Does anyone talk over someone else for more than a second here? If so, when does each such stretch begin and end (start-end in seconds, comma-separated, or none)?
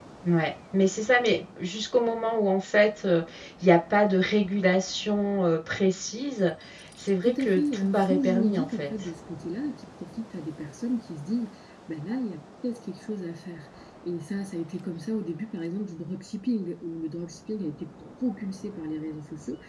7.2-8.9